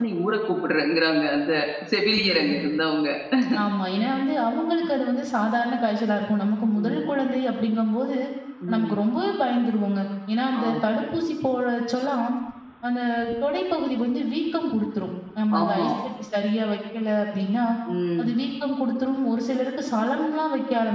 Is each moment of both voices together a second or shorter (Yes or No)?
Yes